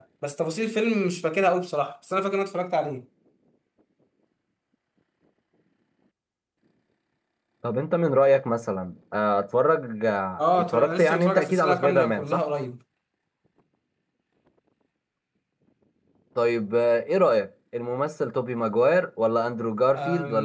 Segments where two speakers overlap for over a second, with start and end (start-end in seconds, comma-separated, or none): 10.4-12.4